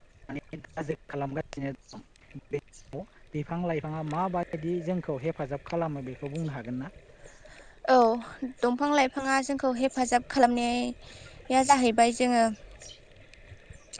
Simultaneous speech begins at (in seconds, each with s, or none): none